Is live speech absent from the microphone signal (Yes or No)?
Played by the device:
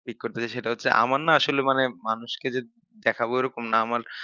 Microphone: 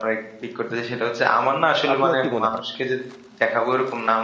No